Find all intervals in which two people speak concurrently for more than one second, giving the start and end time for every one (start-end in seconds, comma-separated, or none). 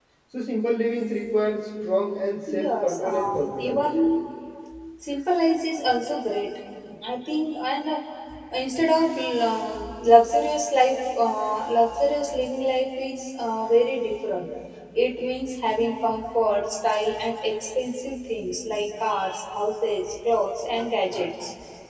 2.5-3.8